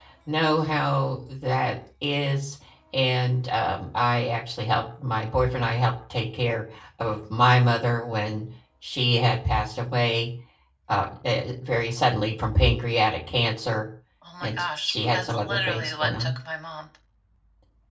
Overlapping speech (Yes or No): Yes